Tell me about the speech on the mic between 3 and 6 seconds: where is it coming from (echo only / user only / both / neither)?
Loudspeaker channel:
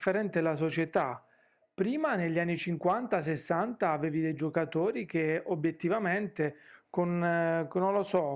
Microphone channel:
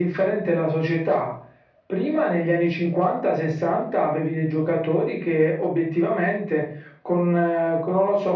echo only